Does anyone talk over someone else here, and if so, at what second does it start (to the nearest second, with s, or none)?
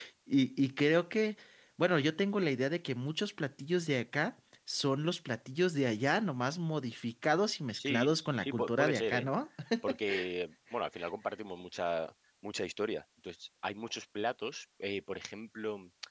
8 s